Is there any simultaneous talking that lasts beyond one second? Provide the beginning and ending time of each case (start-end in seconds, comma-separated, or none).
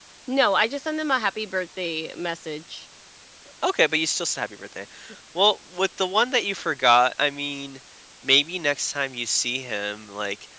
none